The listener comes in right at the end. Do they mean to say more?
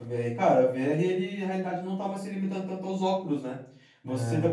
No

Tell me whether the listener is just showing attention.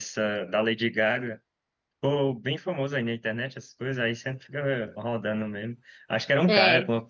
Yes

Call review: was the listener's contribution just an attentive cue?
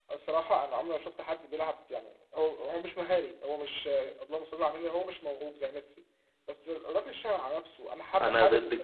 No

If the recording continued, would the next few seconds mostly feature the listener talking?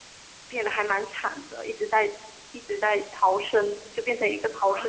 Yes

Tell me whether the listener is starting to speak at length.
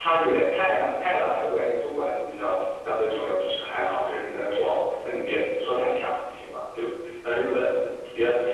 No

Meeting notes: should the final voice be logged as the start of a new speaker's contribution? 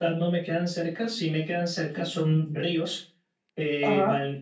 No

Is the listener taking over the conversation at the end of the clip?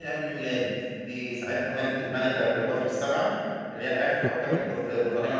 No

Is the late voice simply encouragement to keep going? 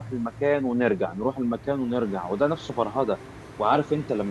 Yes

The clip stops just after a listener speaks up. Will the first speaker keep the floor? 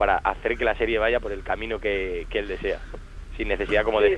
Yes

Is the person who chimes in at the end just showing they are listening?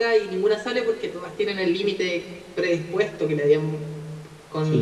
No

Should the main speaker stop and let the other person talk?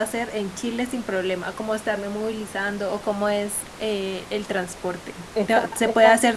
No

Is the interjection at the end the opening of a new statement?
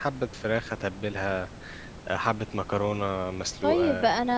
Yes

